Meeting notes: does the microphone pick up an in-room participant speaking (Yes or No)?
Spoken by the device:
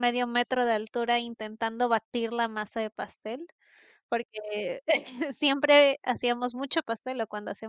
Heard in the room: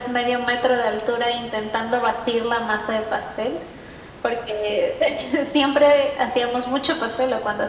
No